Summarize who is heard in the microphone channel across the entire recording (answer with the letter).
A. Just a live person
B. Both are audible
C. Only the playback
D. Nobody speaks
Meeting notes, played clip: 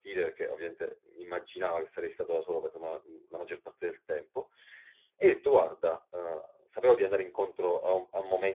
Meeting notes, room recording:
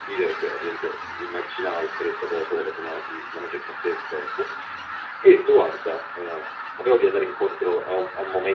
C